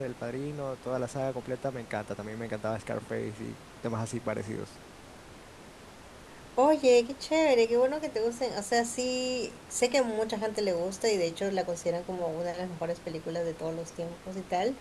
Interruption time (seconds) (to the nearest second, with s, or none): none